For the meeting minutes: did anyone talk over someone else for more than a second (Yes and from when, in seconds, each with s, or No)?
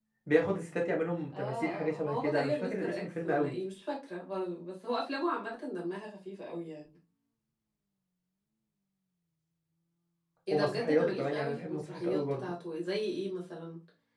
Yes, from 1.3 s